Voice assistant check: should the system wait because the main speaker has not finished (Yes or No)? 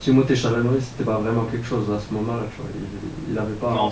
No